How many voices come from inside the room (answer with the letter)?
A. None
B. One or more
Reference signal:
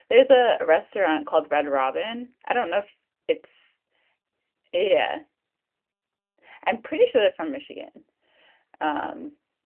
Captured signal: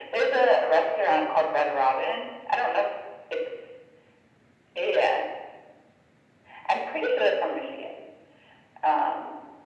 A